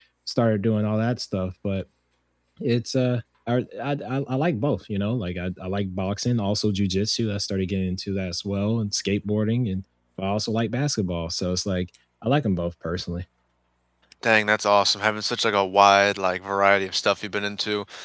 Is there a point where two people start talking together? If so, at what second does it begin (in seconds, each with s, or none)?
none